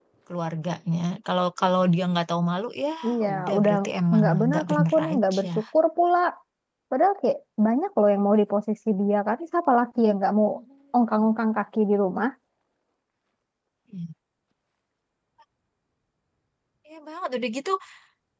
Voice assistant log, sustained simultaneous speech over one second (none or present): present